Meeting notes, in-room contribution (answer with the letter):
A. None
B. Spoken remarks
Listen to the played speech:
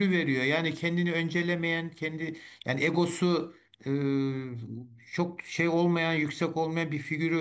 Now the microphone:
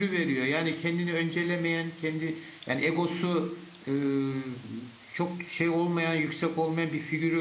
A